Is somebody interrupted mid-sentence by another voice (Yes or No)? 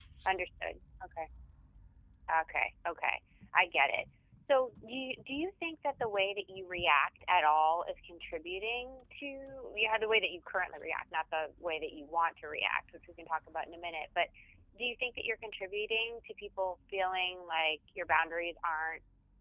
No